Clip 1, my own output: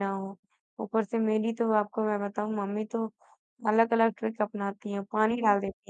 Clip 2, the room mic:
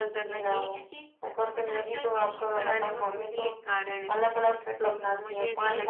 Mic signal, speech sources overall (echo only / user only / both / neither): both